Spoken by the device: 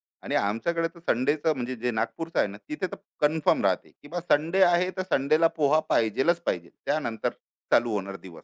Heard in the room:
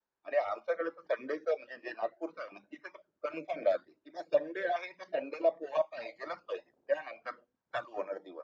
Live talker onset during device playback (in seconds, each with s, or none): none